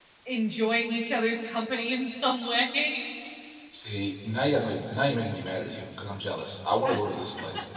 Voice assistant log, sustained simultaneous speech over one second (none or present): none